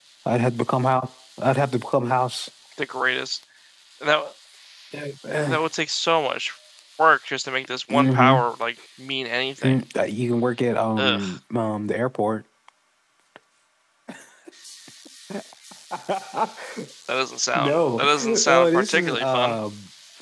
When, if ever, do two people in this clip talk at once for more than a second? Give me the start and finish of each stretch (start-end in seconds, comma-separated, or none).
17.6-19.6